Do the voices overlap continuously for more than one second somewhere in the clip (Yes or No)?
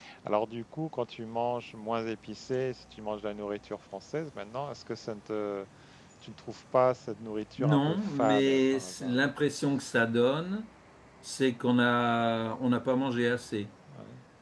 Yes